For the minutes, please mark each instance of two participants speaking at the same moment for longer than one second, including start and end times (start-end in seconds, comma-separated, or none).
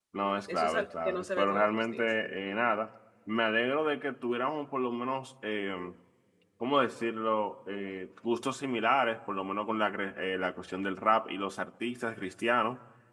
0.5-2.0